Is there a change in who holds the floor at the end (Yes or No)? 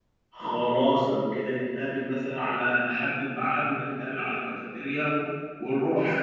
Yes